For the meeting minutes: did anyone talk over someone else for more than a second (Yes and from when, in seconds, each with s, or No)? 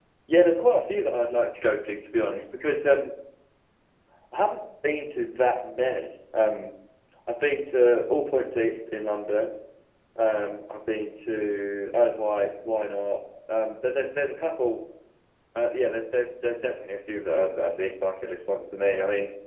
No